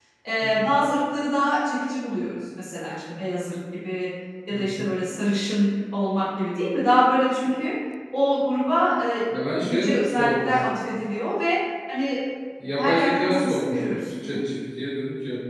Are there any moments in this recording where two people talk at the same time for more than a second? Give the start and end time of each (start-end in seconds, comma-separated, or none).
9.6-10.8, 12.8-14.4